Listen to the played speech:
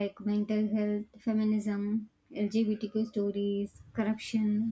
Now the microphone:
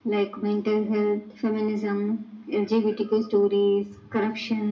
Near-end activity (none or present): none